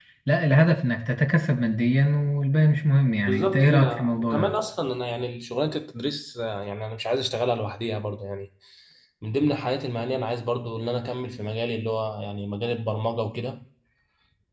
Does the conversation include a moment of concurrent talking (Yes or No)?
Yes